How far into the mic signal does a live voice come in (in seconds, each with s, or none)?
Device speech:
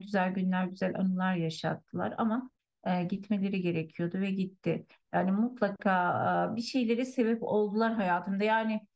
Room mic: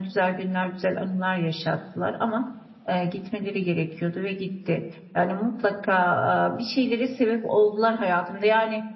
none